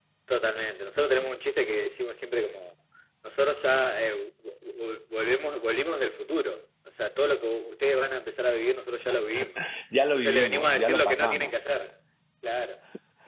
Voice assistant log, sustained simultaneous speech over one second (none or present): present